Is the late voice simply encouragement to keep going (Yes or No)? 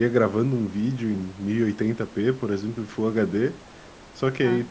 Yes